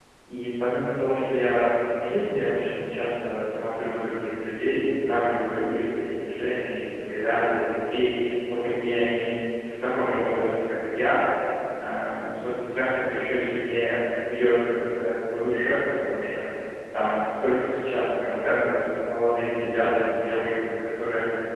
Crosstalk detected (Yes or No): No